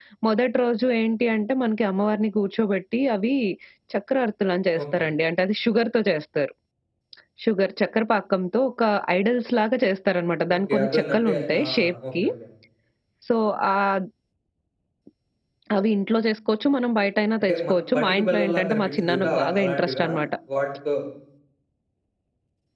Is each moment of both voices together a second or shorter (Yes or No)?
No